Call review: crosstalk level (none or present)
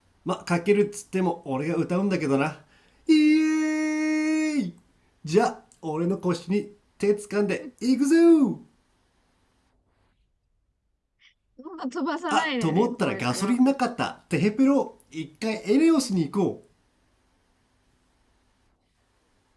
present